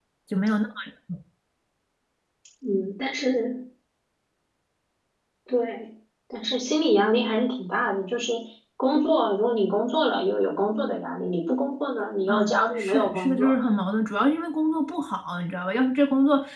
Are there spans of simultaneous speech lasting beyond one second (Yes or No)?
Yes